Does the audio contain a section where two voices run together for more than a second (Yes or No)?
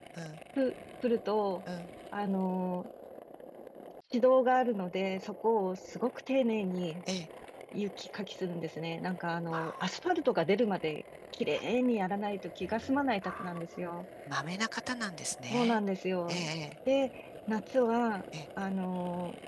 No